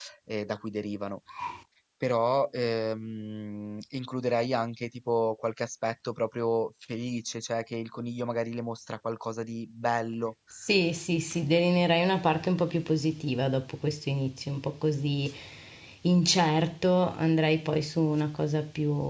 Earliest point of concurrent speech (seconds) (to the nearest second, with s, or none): none